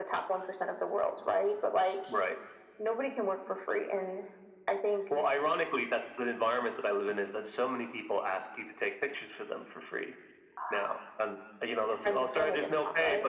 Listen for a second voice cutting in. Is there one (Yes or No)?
Yes